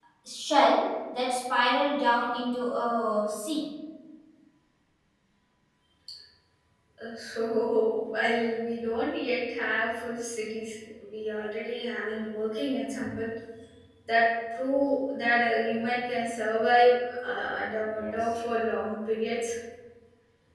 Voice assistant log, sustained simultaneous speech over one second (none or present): none